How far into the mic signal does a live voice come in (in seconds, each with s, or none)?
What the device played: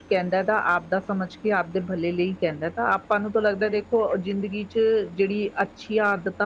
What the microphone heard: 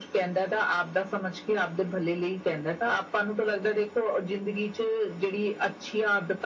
none